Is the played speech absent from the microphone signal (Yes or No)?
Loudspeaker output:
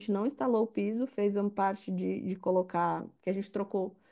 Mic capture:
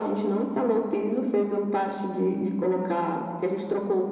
No